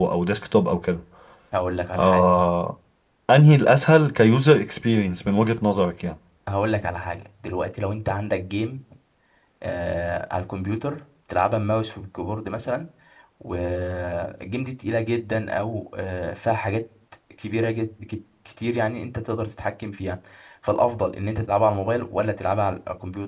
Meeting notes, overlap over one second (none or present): none